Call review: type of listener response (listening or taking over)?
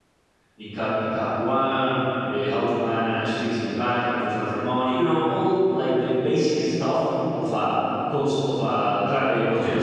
listening